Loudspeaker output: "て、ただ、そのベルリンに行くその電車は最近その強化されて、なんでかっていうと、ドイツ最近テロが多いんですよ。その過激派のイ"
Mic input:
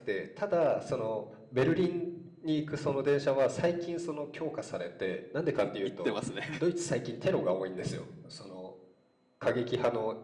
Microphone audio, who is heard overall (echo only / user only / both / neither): both